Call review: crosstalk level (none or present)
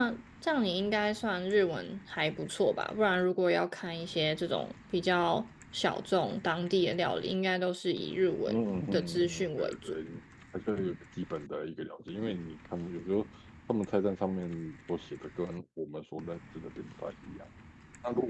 present